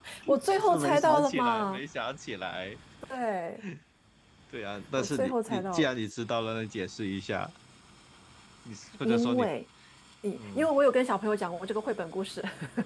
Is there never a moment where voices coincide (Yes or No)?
No